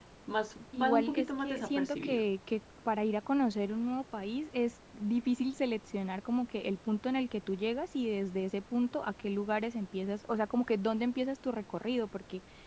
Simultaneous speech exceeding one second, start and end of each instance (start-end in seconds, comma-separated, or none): 0.8-2.2